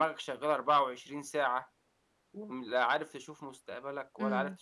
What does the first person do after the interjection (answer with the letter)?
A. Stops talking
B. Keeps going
A